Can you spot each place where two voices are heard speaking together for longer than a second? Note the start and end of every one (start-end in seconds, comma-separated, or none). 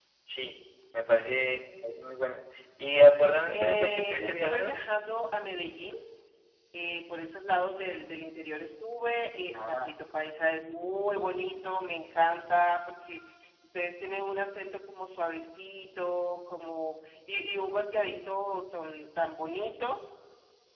3.5-4.8